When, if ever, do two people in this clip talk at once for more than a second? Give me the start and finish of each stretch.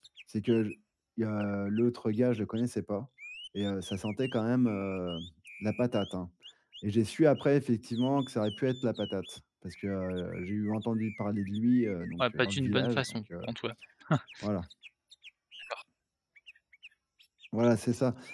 12.2-13.5

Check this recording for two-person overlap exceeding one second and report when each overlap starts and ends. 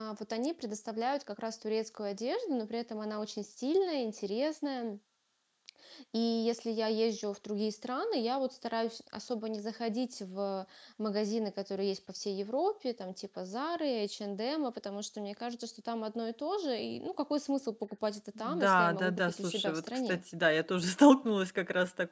18.4-20.2

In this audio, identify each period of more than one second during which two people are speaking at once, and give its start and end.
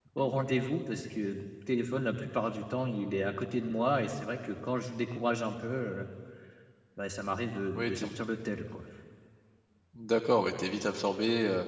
none

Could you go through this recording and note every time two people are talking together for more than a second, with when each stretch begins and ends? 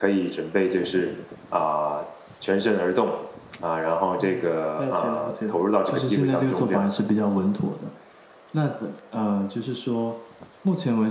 4.2-6.9

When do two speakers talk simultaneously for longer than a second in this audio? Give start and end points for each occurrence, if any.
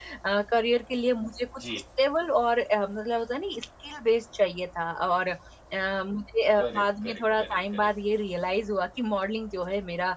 6.6-7.9

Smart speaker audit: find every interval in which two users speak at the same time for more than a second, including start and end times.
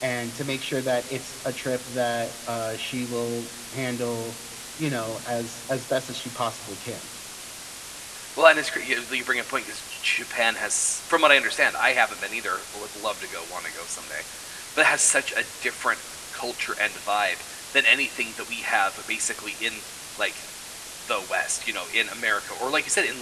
none

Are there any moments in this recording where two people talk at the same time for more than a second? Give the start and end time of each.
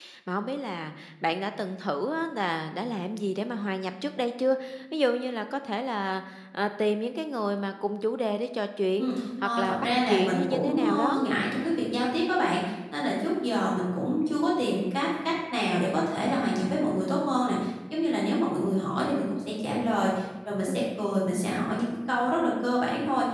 9.0-11.2

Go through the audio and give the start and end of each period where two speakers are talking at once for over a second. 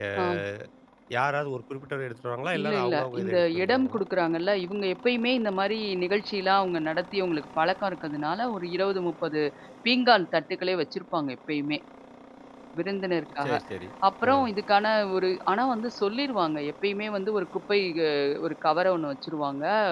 2.6-4.0

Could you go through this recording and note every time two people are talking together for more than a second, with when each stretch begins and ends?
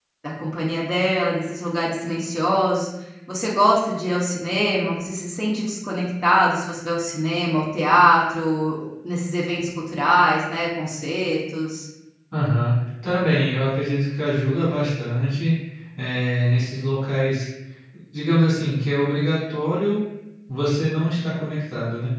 none

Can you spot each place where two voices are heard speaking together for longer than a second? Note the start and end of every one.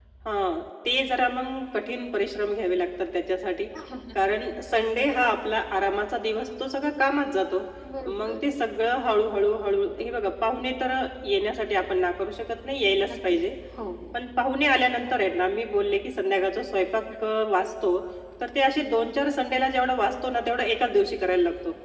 none

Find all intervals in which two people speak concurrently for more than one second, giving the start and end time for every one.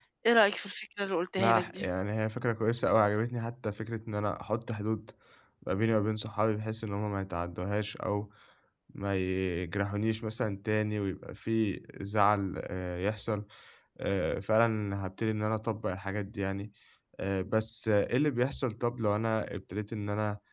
none

